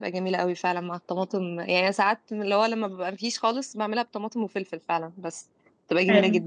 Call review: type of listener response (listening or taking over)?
taking over